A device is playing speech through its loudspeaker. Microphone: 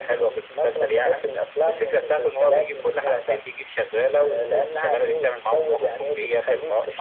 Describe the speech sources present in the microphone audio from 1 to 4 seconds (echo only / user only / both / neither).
echo only